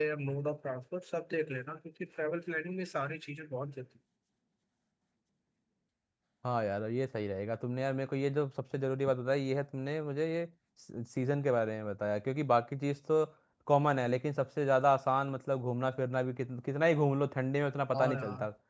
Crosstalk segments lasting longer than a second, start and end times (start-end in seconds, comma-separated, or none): none